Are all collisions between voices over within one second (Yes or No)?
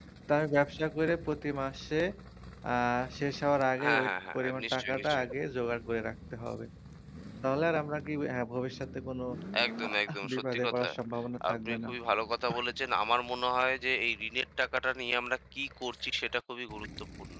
No